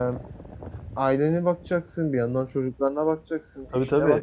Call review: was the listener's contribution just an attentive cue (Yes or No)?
No